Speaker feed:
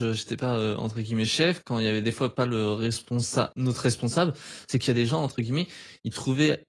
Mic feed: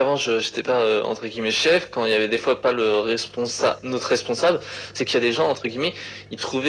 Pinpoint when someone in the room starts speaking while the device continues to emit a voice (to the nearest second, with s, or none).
none